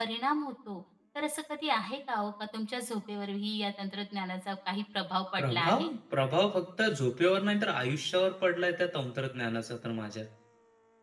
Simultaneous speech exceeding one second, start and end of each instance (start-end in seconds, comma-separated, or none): none